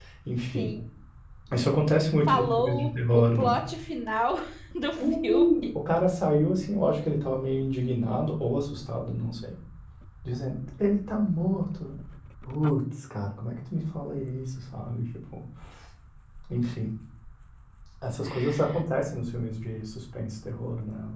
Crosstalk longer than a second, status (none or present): present